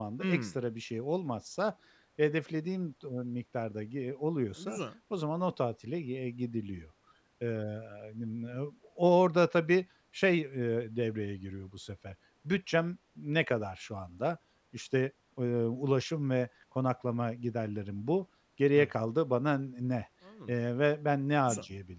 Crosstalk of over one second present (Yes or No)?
No